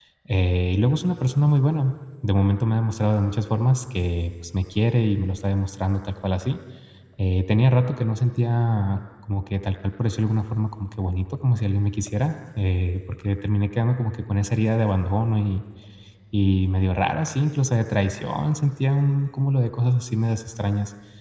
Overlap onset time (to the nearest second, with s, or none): none